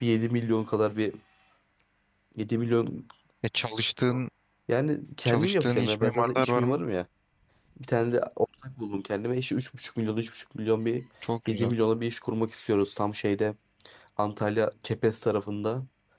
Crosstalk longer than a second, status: present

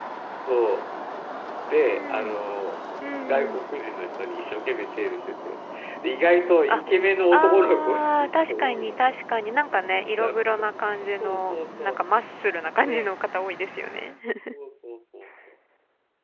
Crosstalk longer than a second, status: present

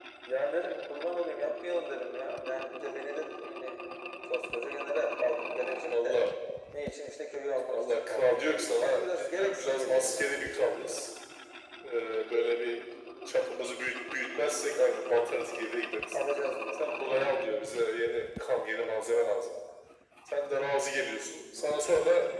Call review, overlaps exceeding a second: present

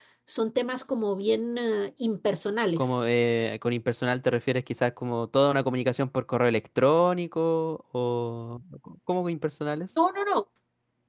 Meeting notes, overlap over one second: none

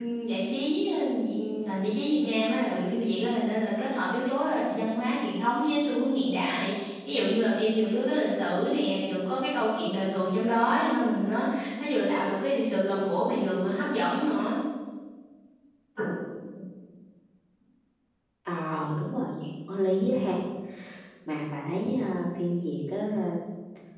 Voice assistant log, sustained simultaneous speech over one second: none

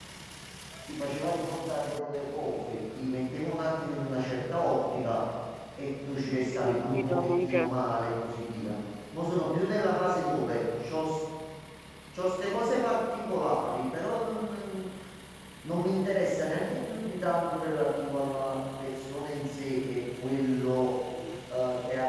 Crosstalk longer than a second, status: present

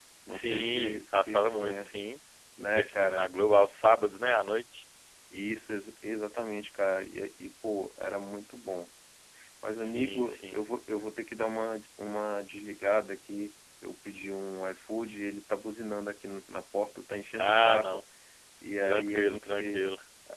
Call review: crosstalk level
present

